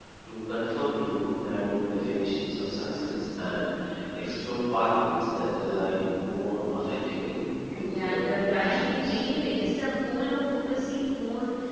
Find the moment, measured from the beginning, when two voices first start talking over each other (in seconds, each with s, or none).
7.7 s